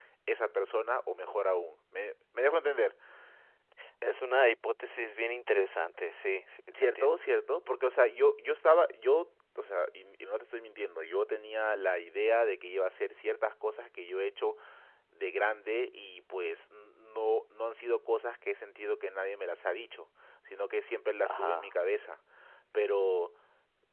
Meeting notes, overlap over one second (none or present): none